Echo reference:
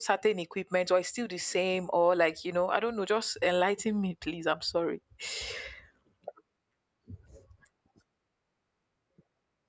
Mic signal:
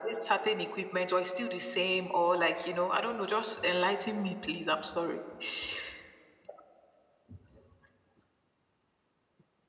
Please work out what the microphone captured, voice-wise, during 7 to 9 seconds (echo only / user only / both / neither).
neither